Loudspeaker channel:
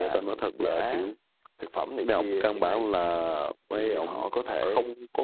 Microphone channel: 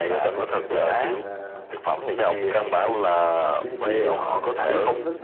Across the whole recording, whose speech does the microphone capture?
both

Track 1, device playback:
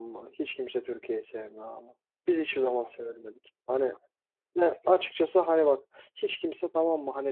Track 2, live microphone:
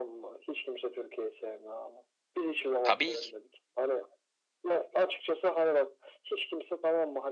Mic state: both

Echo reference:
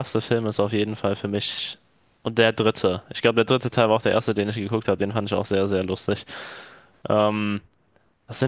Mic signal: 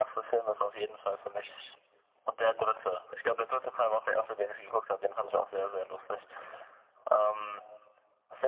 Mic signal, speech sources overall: echo only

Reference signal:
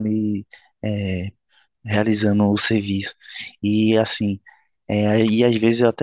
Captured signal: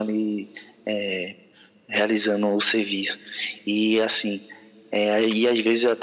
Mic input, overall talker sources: echo only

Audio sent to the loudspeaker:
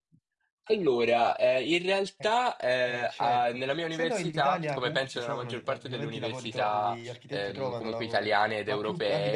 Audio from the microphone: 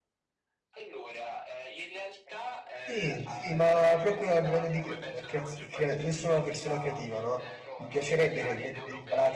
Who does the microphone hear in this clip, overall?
both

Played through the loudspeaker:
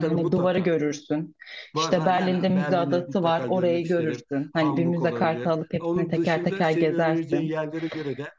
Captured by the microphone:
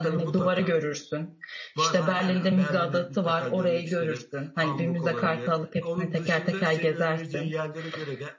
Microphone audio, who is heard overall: echo only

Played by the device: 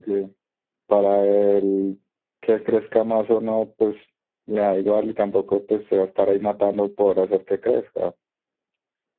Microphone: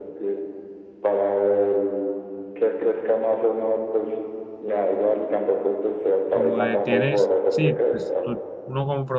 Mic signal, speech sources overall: both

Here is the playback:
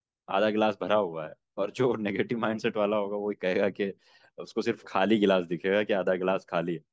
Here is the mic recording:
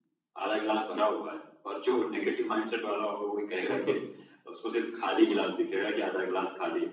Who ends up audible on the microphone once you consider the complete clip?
both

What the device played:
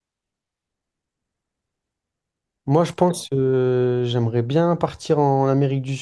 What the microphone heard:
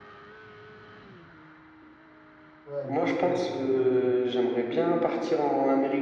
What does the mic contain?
both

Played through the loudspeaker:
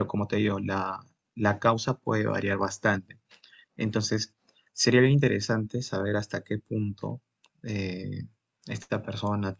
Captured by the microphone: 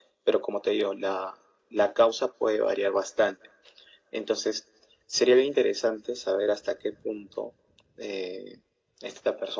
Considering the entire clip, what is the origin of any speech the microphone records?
echo only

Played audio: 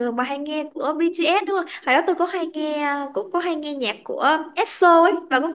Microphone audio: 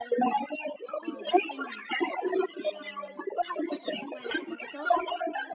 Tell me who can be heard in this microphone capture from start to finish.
both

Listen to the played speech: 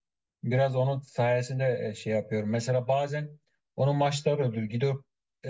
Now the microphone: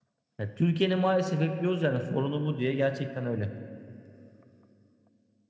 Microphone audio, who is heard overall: user only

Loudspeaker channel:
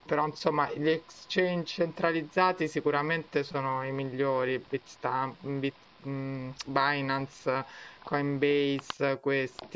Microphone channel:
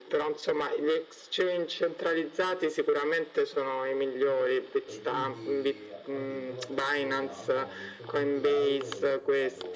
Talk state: both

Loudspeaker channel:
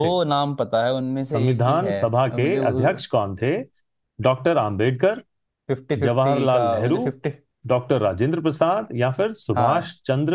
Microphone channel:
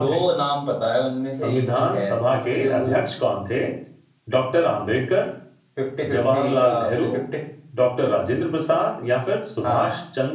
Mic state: echo only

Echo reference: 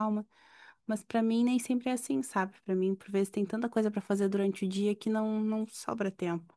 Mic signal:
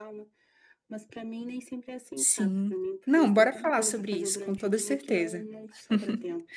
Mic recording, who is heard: both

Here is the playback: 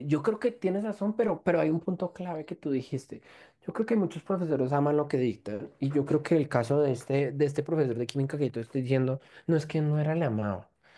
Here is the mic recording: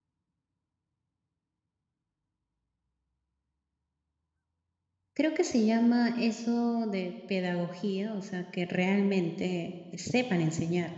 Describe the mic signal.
user only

